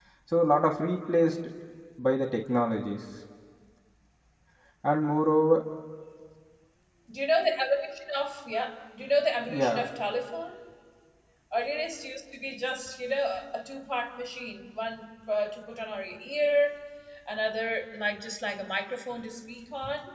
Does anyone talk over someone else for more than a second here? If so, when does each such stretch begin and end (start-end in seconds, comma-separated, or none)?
none